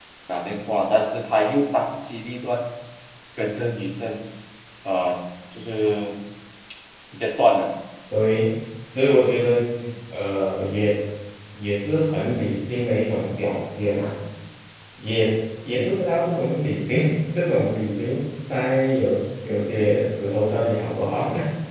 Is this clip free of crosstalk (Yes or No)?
Yes